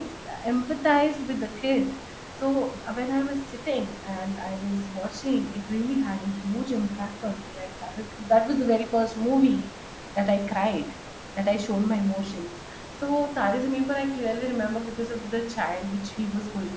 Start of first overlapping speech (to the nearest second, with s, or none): none